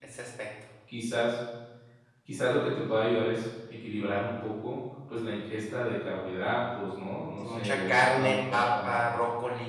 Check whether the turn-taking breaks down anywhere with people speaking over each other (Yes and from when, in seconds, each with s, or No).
Yes, from 7.4 s